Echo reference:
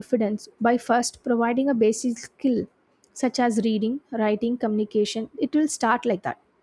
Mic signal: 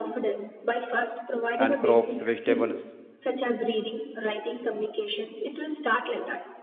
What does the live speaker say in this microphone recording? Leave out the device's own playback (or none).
and crops, vegetables.